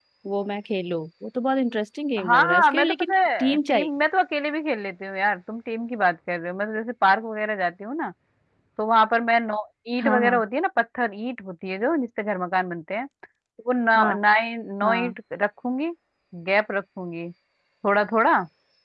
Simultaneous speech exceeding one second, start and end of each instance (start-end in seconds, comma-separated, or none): 2.2-3.9